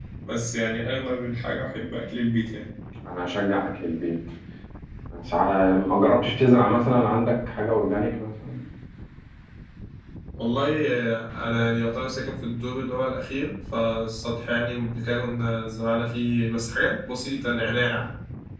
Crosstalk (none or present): none